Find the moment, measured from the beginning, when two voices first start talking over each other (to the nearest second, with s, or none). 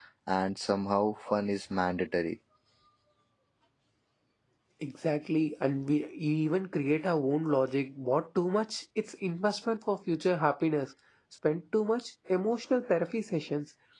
none